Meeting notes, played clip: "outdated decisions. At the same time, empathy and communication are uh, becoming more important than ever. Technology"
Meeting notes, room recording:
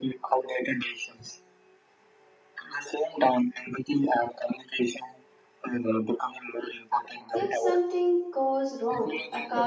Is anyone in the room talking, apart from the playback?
Yes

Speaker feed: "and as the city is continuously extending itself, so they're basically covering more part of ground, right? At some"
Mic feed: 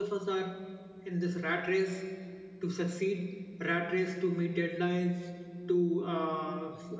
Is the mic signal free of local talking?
No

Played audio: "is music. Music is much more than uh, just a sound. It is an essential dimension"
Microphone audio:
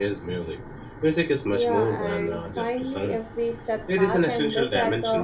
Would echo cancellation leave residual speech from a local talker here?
Yes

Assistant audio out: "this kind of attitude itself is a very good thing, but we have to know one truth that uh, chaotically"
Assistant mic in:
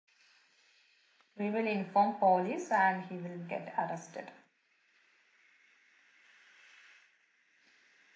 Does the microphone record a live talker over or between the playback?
Yes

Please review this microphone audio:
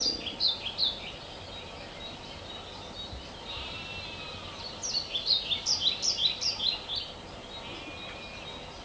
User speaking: No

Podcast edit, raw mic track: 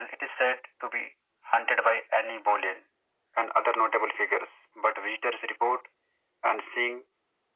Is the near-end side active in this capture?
No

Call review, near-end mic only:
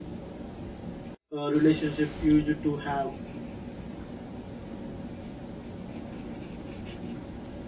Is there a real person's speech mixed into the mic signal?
Yes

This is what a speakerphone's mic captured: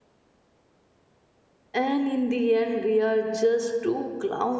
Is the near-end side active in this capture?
Yes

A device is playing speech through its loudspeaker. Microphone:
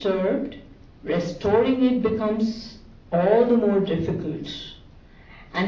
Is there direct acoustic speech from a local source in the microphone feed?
No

